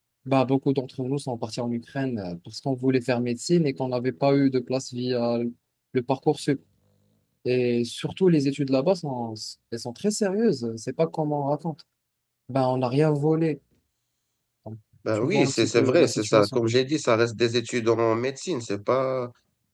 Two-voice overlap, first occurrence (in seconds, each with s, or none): 15.2 s